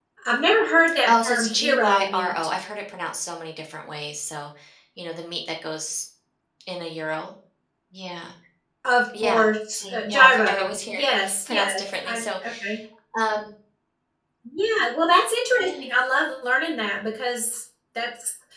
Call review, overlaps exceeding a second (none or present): present